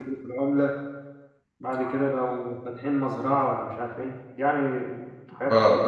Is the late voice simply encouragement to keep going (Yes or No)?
No